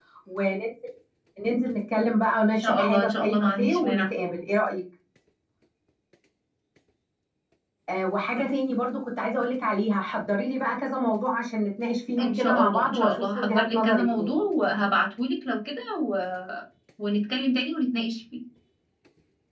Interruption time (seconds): 3 s

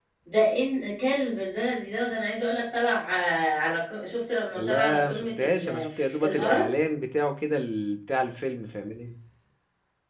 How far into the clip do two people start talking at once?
5 s

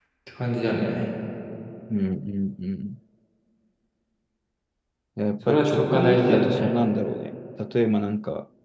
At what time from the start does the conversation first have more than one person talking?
5 s

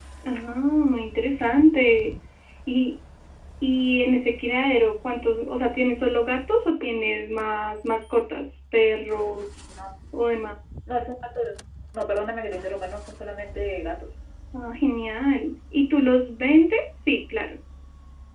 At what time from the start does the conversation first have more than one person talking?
none

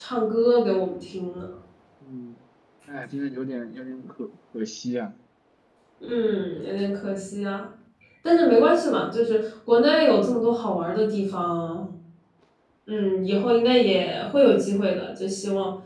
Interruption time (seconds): none

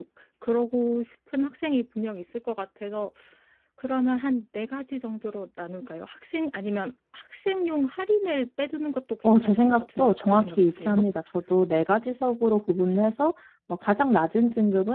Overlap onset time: 9 s

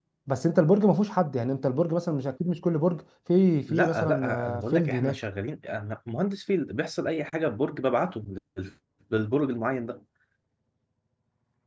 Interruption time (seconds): 4 s

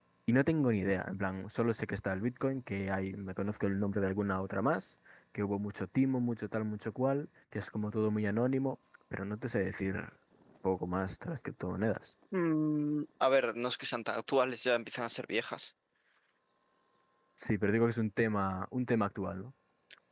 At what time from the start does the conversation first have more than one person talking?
none

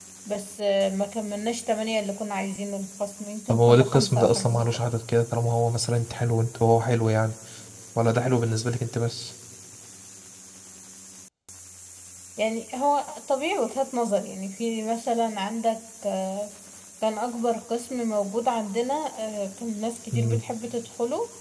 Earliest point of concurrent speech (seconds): 3 s

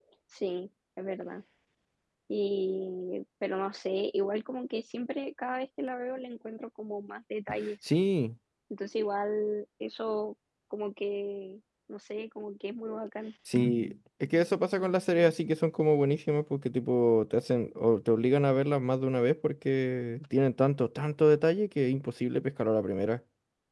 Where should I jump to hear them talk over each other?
none

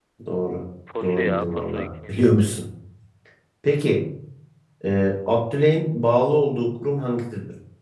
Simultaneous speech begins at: 1 s

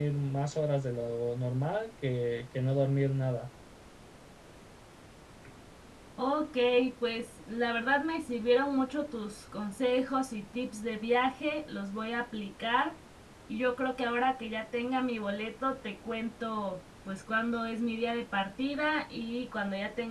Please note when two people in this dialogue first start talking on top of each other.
none

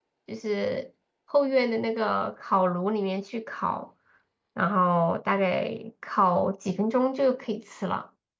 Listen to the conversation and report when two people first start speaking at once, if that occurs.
none

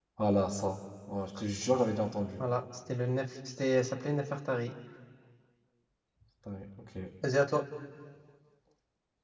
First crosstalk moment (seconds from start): none

